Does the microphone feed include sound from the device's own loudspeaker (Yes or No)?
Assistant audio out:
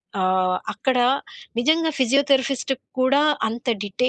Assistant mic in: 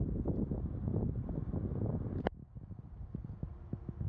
No